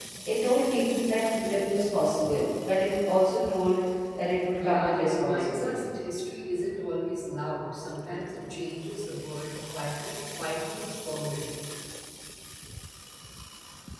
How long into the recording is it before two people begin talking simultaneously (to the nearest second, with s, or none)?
5 s